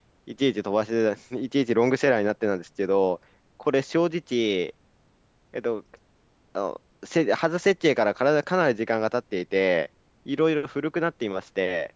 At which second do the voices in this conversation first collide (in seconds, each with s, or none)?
none